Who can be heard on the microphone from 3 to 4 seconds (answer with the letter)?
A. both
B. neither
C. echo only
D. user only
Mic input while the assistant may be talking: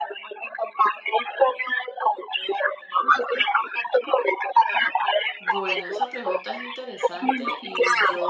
C